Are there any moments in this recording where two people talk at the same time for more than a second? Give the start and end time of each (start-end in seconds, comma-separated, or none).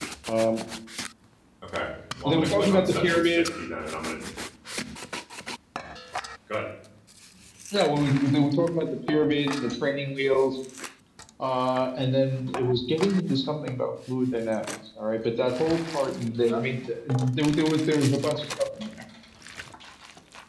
2.2-3.5